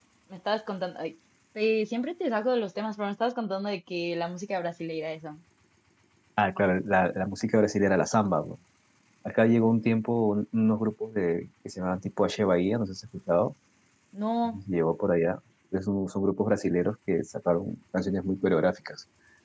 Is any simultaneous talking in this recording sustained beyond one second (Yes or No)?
No